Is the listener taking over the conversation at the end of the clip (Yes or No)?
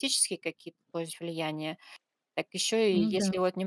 No